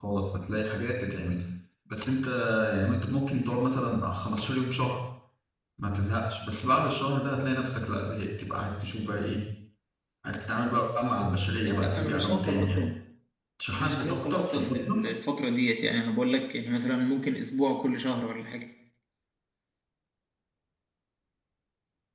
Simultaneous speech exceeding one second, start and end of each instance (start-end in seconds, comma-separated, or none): 11.6-12.8, 13.8-15.0